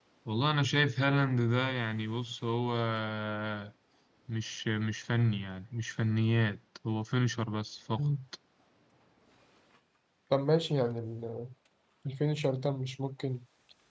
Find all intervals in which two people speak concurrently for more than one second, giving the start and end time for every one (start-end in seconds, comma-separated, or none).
none